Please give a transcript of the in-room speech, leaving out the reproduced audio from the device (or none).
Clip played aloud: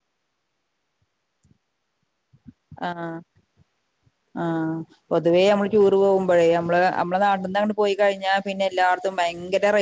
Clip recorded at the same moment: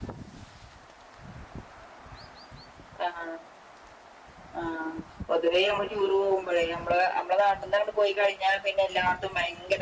none